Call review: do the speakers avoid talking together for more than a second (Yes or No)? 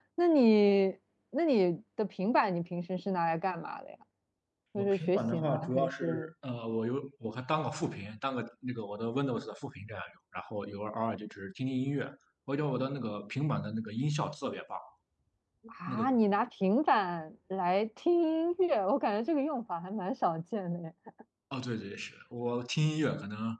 No